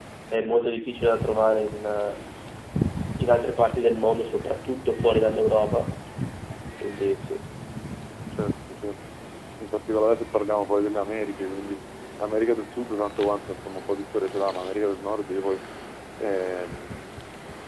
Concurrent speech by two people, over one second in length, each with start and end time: none

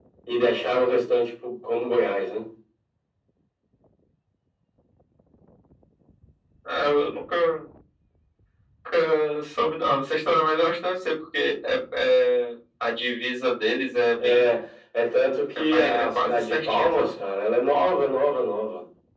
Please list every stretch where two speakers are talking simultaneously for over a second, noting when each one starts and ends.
15.6-17.1

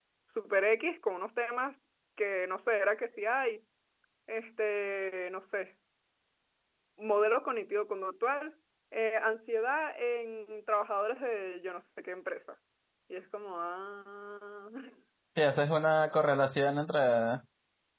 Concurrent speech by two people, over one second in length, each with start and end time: none

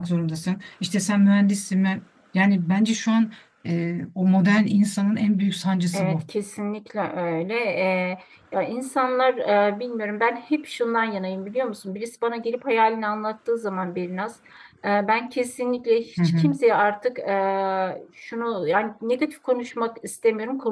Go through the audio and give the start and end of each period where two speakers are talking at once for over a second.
none

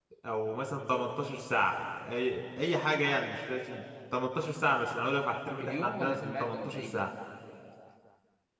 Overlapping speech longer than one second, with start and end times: 5.6-7.0

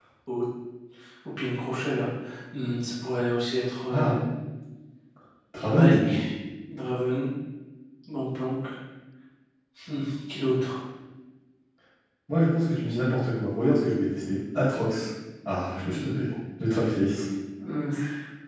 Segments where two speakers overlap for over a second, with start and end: none

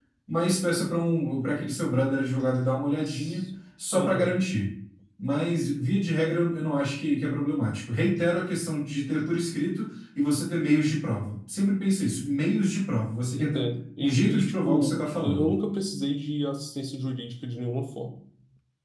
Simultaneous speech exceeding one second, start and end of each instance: 14.0-15.5

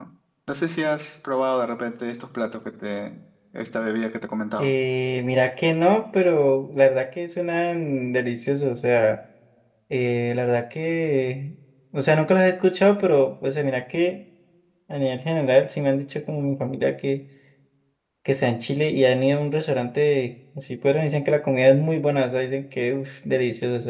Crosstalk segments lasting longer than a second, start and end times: none

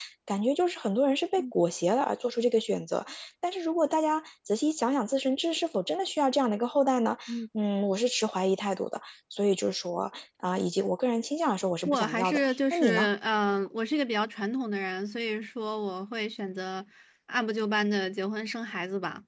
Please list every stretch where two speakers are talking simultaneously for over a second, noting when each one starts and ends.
11.8-13.1

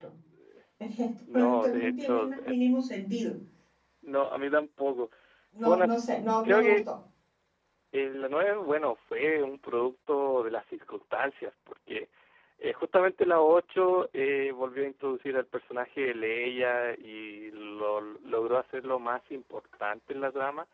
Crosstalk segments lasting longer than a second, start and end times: 1.3-2.5

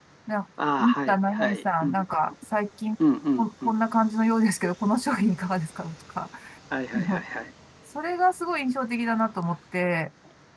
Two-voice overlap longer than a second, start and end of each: 0.8-2.0

